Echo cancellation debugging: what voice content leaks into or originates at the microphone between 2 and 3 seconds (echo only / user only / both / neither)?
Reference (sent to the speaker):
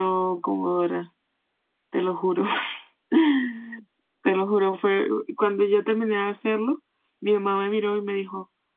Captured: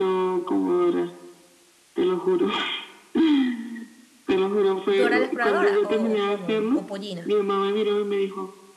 echo only